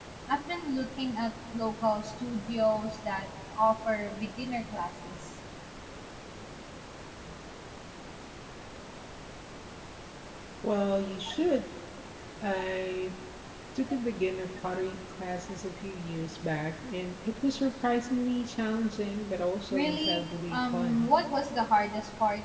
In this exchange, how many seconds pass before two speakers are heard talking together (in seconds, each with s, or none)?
19.7 s